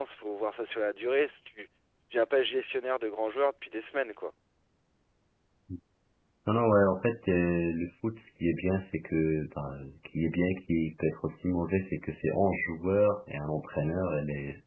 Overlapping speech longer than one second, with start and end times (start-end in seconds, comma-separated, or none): none